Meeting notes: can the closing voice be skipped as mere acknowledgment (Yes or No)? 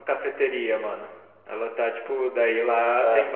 Yes